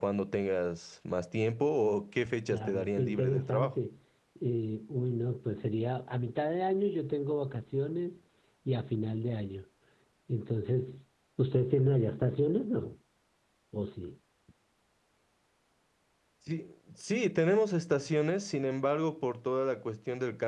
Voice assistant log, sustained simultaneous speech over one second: present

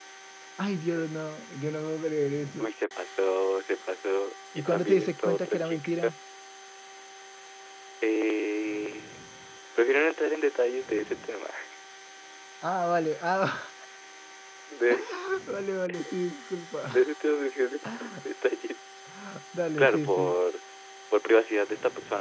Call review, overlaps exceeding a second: present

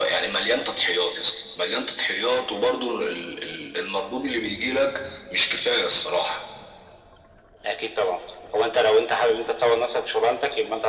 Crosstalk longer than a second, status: none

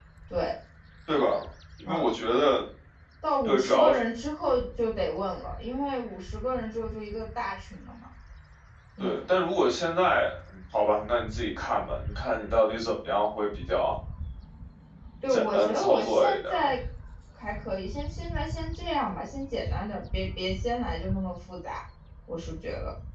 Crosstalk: present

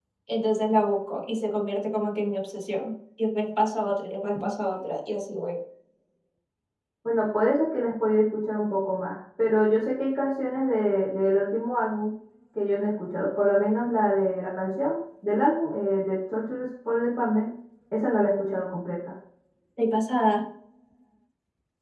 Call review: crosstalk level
none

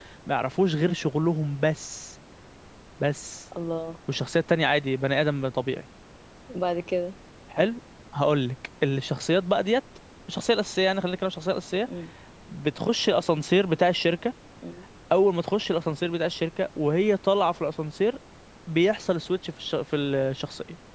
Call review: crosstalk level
none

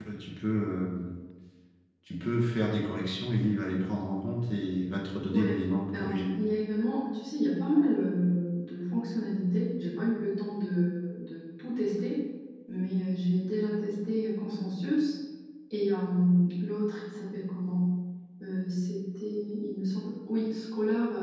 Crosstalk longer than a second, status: none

